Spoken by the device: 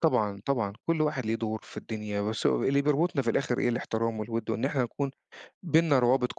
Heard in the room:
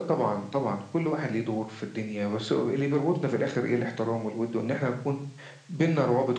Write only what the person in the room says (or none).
none